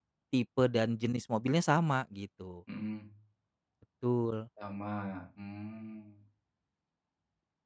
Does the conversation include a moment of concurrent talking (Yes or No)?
No